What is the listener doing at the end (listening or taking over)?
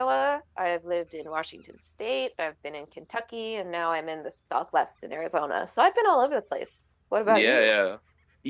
taking over